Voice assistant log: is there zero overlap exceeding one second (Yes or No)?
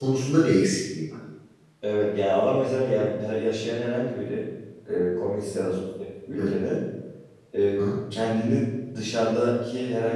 Yes